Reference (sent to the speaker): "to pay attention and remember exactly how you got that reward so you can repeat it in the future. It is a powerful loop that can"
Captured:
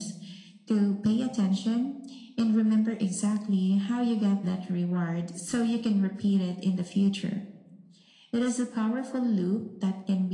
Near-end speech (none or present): none